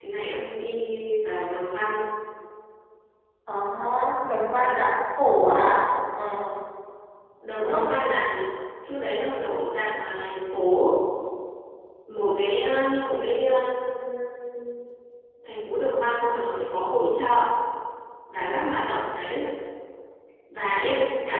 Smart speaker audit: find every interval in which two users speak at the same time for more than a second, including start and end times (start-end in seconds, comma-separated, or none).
none